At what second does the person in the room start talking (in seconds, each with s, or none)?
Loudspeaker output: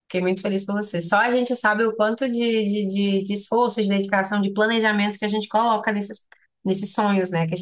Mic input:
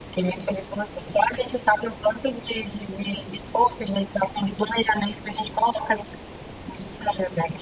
none